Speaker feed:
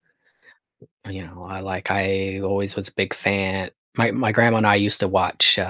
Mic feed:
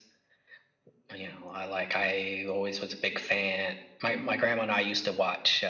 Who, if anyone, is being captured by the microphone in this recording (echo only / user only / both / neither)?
echo only